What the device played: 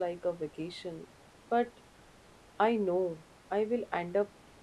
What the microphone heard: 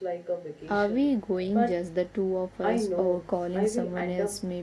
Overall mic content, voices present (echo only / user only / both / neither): both